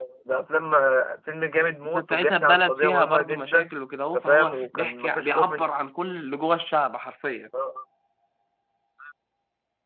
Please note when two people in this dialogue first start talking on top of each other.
1.9 s

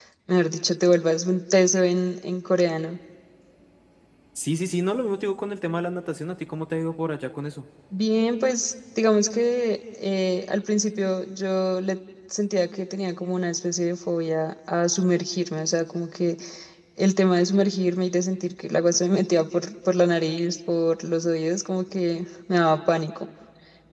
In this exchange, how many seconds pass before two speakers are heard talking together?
none

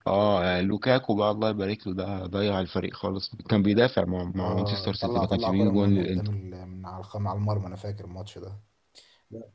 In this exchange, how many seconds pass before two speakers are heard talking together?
4.4 s

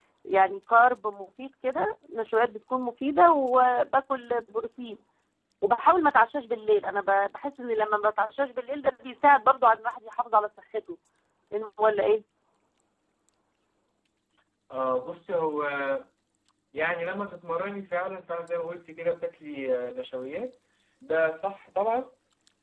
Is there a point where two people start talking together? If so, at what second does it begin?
none

